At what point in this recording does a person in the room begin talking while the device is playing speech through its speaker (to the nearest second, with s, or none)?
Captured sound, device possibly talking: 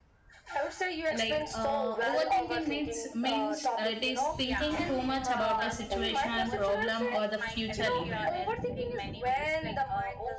1 s